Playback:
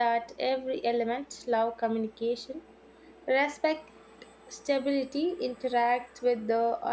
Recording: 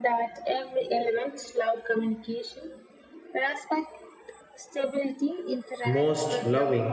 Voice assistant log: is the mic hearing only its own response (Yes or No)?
No